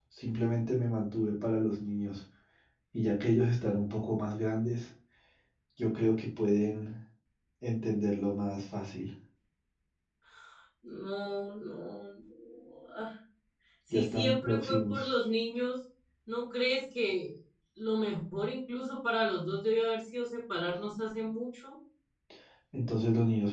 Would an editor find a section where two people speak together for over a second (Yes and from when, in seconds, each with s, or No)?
Yes, from 13.9 s